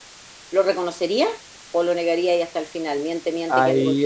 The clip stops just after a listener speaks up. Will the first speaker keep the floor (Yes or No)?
No